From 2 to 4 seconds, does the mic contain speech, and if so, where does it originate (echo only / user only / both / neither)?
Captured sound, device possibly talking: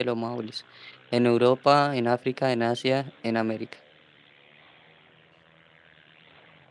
user only